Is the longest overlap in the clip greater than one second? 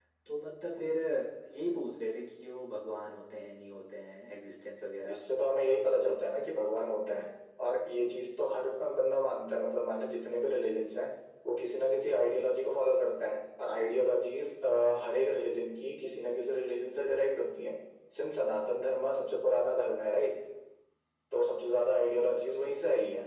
No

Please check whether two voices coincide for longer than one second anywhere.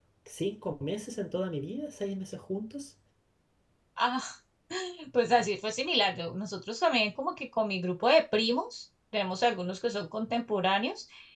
No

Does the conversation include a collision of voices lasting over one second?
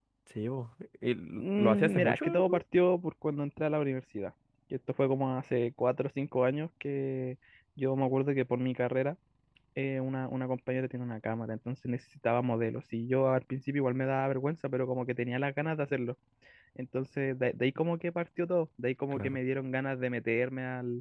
Yes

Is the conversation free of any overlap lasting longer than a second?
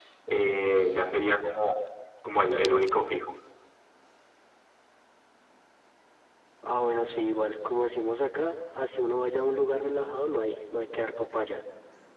Yes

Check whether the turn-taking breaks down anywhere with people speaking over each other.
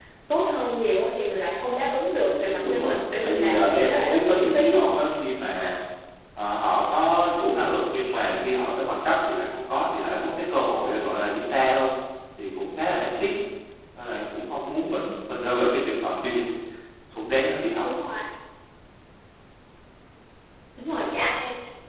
Yes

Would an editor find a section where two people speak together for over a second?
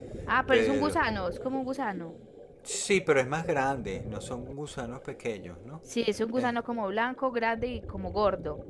No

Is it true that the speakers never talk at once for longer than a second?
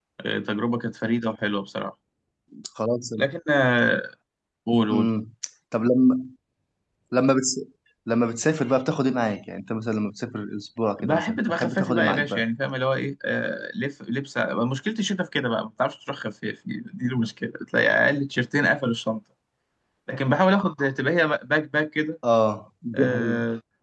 No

